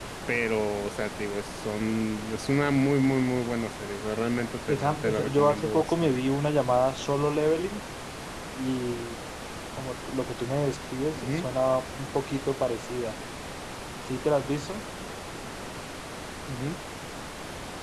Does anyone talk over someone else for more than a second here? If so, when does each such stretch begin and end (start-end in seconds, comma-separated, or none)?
4.7-6.3